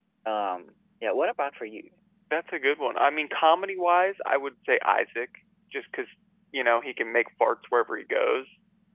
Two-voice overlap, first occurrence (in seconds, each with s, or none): none